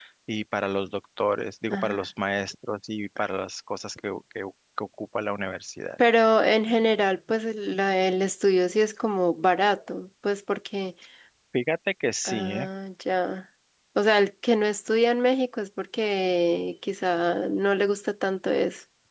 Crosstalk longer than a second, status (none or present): none